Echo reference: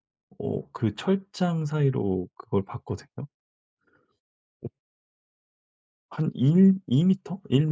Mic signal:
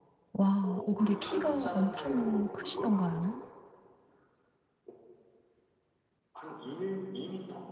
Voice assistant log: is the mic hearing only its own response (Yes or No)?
No